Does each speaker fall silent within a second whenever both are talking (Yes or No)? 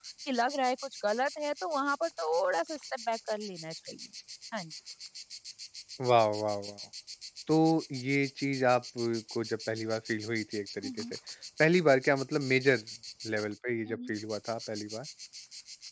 Yes